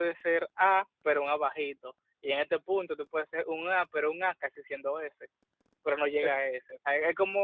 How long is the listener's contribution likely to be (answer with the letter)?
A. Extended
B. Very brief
B